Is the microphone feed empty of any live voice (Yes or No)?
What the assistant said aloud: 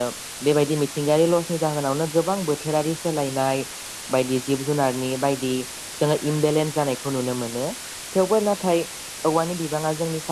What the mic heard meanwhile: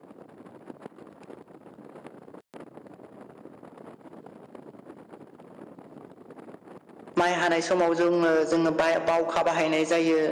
No